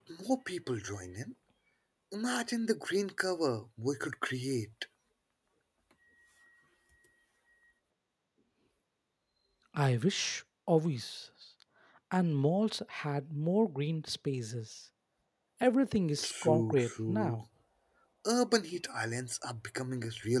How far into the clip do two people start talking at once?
16.2 s

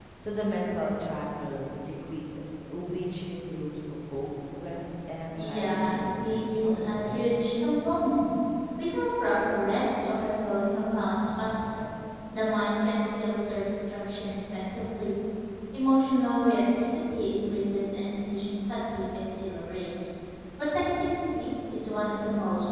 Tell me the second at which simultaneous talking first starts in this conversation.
5.4 s

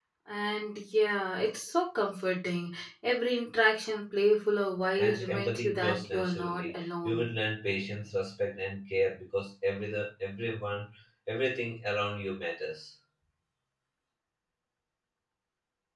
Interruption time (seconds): 5.0 s

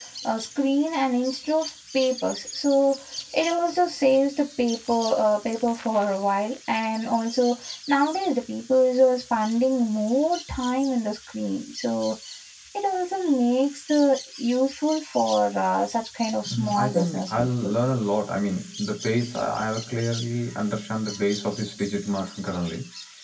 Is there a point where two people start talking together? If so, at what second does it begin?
16.4 s

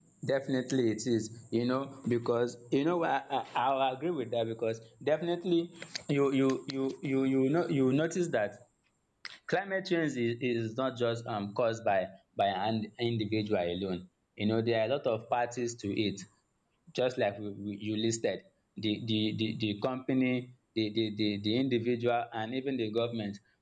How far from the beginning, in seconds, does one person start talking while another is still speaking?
none

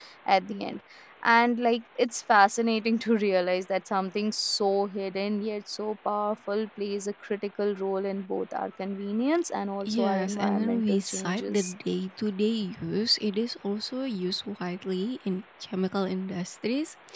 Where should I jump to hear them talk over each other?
9.8 s

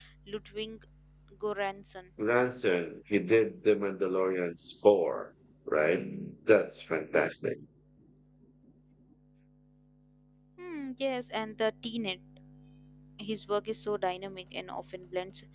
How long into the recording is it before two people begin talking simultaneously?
none

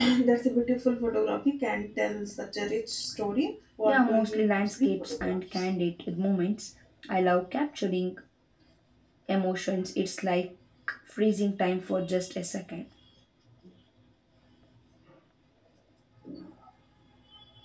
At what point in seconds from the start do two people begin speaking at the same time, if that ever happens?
3.9 s

